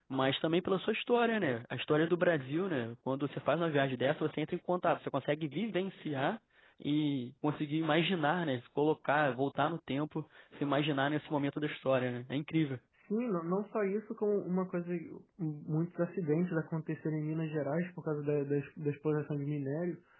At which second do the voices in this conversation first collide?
none

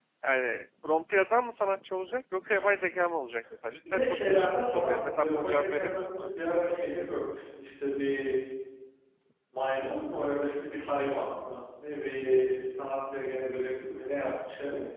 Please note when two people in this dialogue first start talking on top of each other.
3.8 s

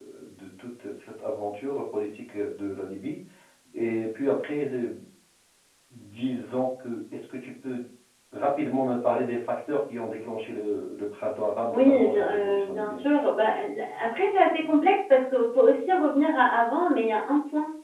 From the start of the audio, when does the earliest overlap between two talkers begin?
11.7 s

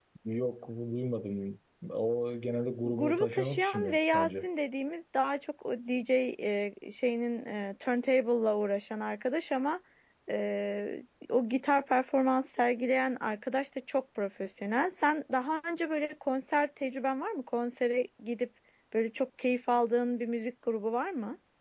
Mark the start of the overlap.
2.8 s

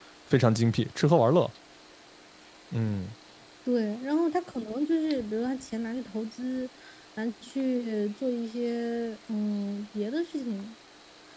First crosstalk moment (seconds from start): none

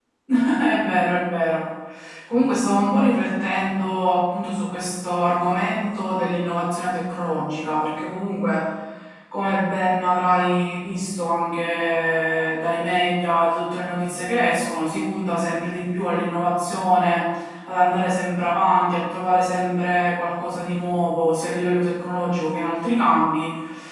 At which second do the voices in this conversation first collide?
none

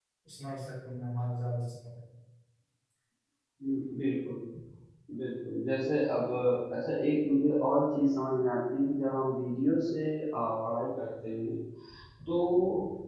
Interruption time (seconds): none

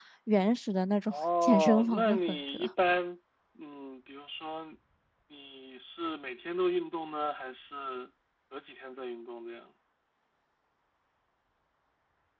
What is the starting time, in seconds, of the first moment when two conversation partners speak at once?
1.1 s

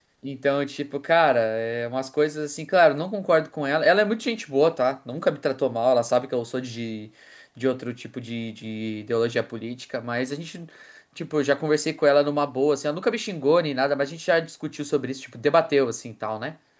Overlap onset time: none

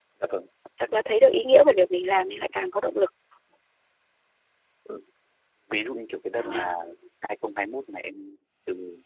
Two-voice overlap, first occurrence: none

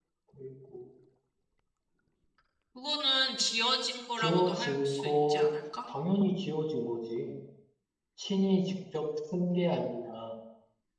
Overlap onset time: 4.2 s

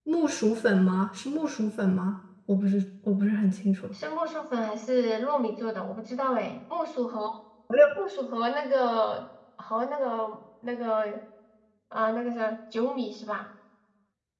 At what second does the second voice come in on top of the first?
none

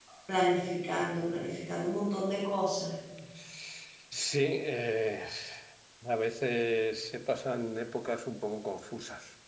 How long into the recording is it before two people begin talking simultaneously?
none

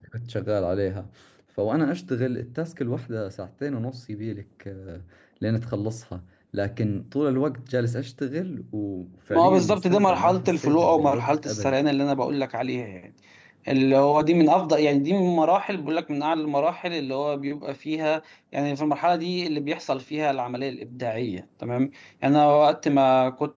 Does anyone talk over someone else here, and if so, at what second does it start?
9.3 s

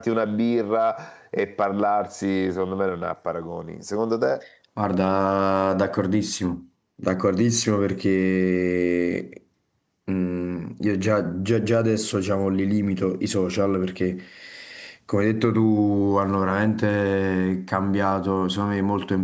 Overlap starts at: none

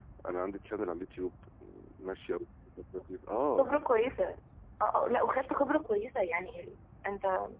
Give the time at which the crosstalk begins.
none

